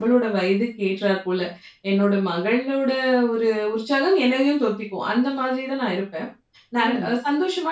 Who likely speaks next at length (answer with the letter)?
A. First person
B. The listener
A